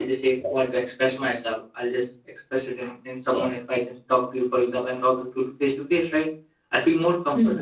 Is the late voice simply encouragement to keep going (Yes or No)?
Yes